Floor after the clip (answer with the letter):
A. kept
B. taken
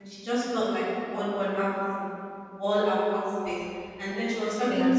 A